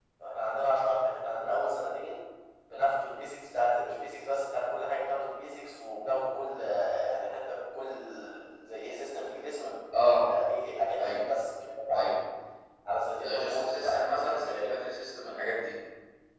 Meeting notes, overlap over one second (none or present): present